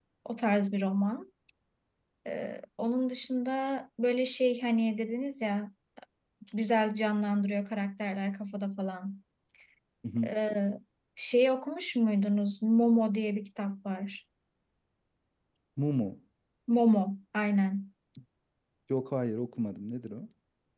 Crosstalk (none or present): none